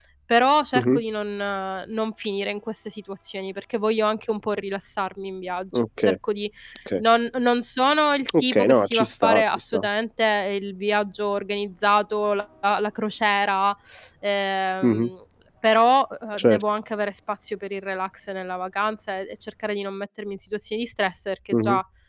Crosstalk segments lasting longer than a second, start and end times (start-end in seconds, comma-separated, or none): 8.4-9.8